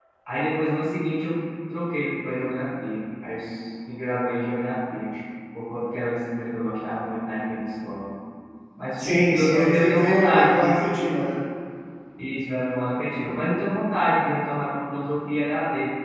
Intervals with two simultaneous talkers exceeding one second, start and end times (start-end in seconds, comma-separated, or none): 9.0-10.8